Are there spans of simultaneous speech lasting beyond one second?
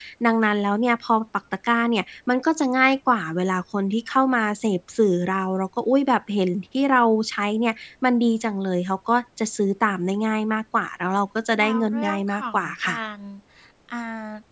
Yes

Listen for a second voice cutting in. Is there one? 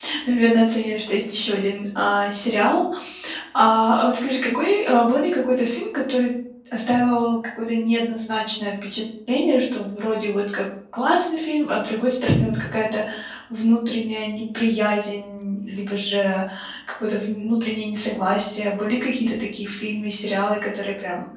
No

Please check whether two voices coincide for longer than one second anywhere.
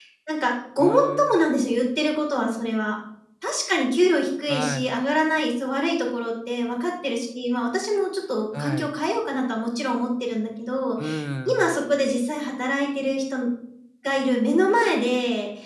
No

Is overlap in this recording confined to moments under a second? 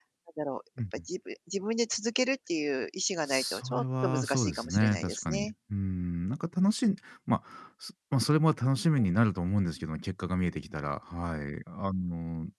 No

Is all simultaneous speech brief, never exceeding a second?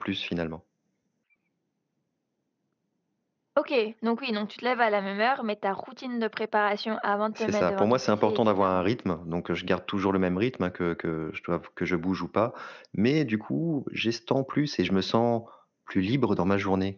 No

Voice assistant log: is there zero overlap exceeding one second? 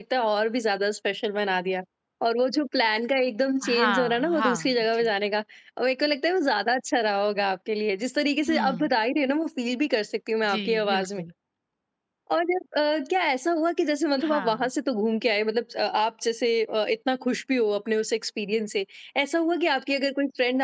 No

